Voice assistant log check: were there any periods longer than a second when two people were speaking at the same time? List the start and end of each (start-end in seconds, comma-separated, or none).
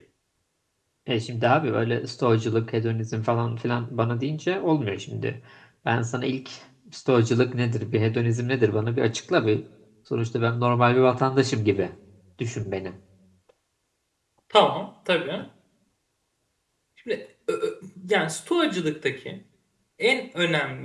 none